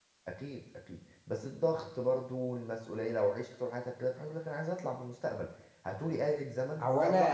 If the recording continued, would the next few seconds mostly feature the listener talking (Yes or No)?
Yes